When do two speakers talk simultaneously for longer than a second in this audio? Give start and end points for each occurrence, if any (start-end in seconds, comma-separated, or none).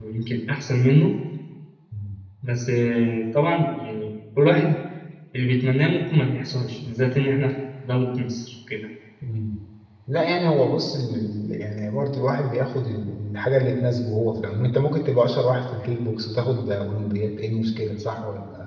none